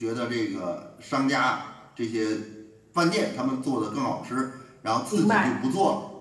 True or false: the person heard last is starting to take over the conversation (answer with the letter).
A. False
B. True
A